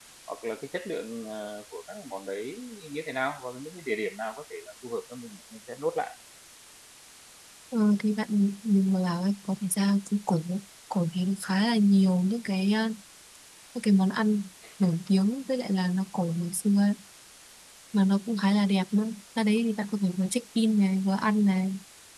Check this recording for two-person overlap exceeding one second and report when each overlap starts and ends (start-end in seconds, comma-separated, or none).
none